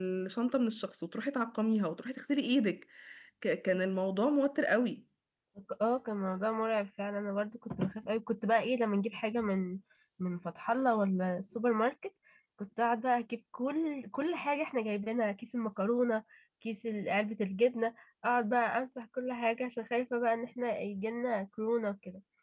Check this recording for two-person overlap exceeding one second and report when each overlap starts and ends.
none

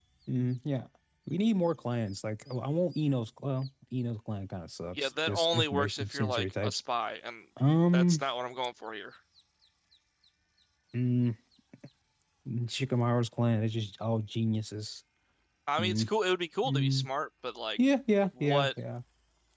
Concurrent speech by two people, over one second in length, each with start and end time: 4.9-6.8

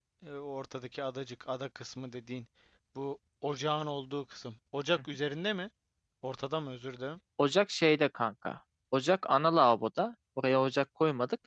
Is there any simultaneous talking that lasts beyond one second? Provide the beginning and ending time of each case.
none

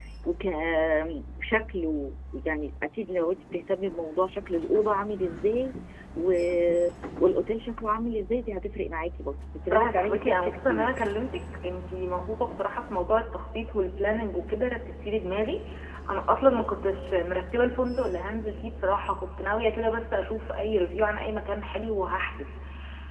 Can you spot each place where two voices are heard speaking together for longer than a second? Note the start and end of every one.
9.7-10.9

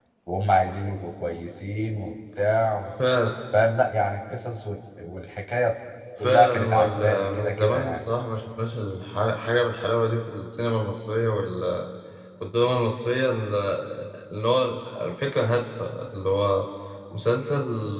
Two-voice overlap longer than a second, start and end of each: 6.2-8.0

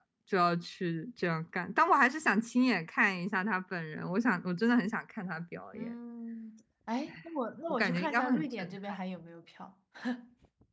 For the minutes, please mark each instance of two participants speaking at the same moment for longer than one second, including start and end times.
7.7-9.0

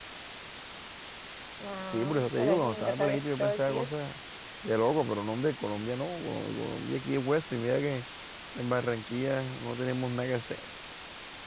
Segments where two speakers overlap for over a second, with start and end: 1.9-3.9

